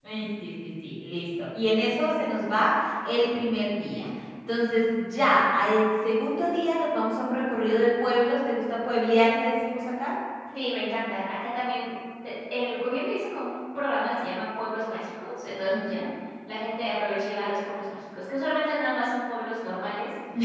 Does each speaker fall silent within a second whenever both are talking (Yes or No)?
Yes